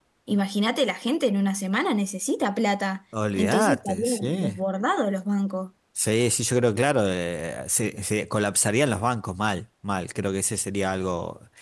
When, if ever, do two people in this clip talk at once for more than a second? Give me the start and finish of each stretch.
3.4-4.6

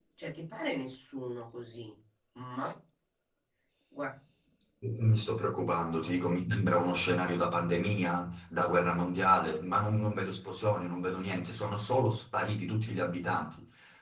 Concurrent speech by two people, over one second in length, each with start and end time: none

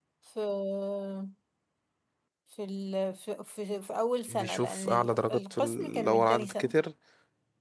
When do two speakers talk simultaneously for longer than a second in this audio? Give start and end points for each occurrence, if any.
4.3-6.7

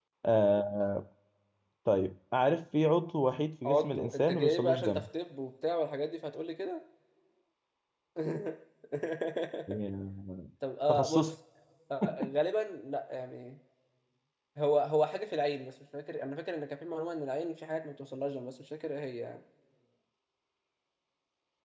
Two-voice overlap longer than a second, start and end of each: 3.6-5.0

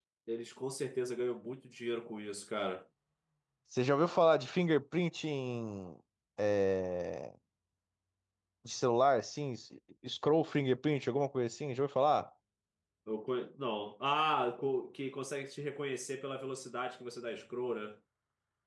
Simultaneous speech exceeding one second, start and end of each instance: none

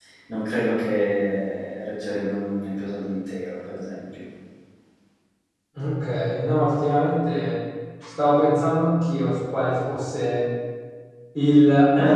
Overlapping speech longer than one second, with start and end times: none

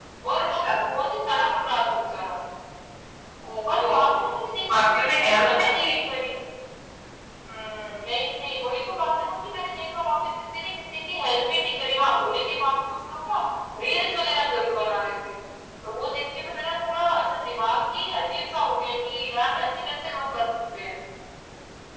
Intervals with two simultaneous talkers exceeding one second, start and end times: 4.7-5.9

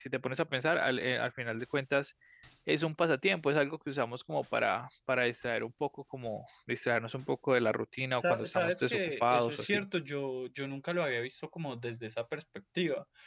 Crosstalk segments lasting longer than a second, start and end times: 8.2-9.8

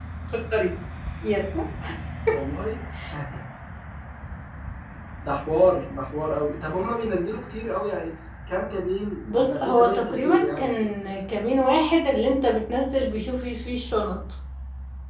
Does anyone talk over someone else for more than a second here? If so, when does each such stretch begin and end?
9.3-10.7

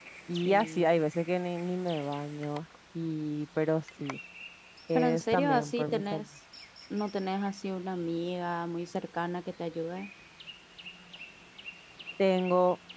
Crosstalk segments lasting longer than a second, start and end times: 5.0-6.2

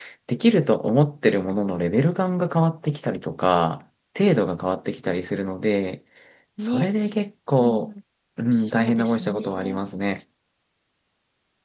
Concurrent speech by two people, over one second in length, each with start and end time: 8.5-9.8

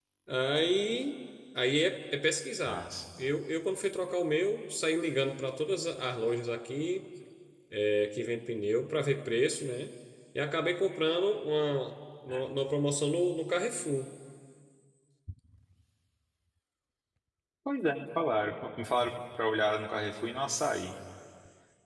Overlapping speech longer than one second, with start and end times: none

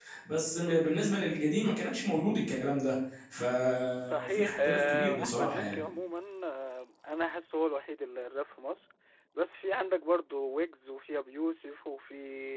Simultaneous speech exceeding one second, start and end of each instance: 4.1-5.8

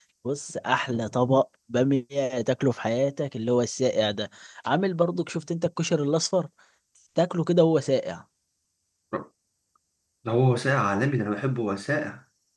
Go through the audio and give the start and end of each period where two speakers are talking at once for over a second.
none

